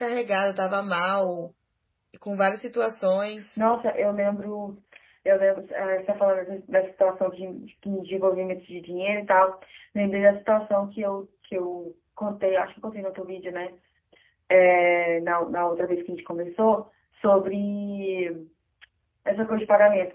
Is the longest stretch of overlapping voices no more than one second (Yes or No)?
Yes